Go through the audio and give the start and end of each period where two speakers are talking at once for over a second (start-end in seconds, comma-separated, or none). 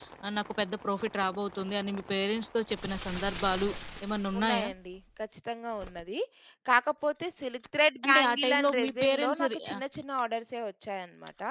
8.1-9.8